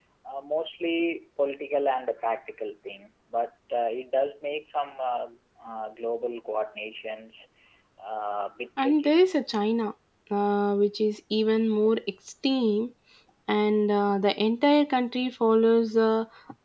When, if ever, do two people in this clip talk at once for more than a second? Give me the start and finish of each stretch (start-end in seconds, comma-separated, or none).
none